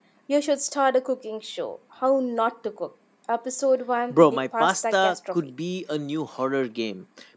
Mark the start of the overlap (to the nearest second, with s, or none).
4 s